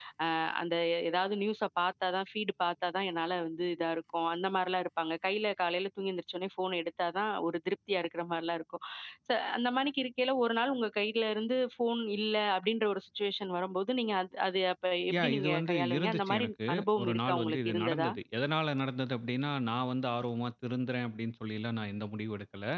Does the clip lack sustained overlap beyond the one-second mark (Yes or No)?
No